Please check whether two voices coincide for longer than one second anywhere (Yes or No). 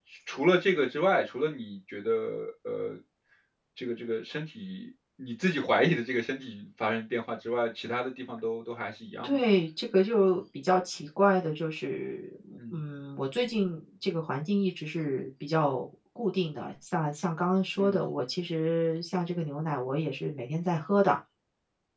No